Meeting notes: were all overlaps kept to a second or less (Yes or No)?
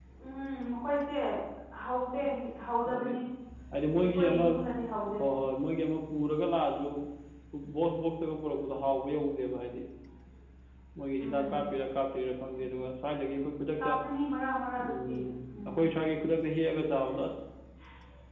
Yes